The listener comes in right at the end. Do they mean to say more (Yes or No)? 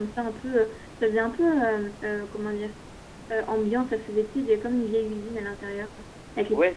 Yes